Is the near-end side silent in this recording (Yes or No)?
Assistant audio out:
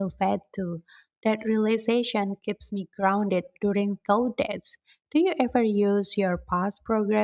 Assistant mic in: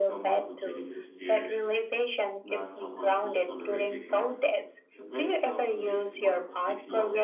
No